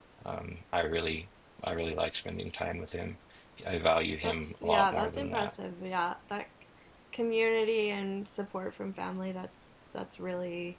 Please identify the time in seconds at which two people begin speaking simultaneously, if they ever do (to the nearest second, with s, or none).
4 s